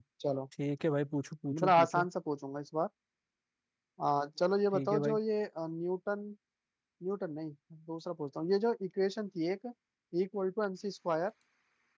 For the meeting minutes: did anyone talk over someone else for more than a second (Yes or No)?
No